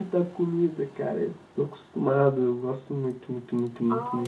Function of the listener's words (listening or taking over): taking over